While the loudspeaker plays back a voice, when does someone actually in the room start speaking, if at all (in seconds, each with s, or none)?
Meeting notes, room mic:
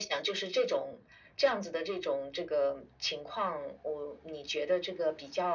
none